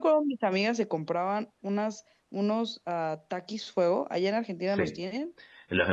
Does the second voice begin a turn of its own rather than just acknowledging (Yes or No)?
Yes